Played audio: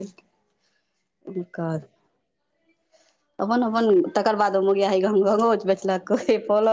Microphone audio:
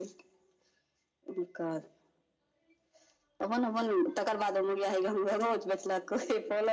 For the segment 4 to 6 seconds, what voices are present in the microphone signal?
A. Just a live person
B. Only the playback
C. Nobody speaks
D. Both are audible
B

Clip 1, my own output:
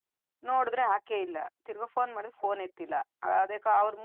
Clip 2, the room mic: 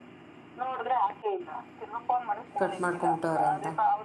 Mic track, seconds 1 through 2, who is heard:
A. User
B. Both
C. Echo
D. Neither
C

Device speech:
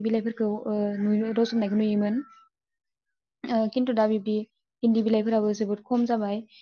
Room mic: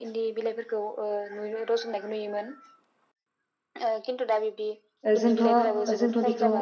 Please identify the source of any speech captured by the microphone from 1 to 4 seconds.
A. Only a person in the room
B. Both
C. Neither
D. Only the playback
D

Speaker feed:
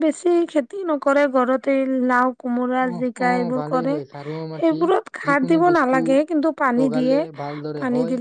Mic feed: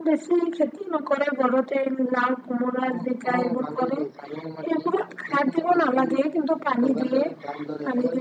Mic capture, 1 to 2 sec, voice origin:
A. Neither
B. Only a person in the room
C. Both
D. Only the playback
D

